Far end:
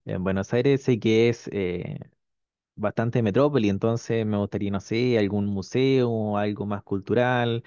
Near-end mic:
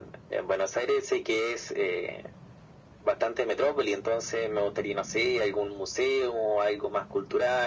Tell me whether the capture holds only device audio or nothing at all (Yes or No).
Yes